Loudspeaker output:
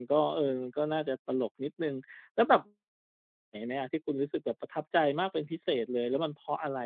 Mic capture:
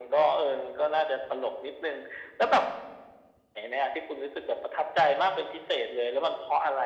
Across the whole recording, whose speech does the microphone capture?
echo only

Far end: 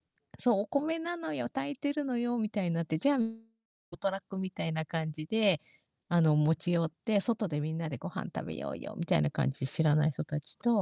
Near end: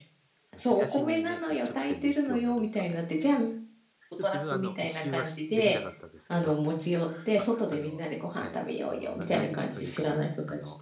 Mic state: both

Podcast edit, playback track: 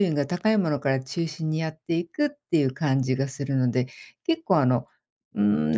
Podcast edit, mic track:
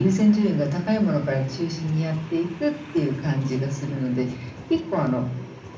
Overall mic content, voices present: echo only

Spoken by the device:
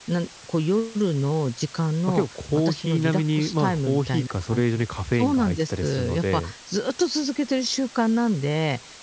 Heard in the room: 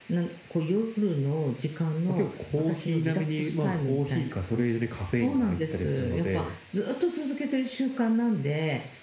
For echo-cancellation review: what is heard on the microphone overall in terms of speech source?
echo only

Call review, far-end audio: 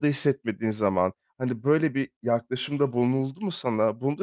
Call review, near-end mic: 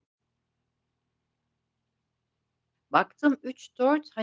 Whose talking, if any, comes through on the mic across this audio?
user only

